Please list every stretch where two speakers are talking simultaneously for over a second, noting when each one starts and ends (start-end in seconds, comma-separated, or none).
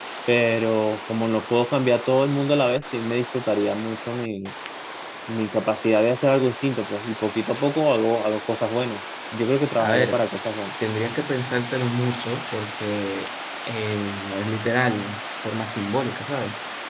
none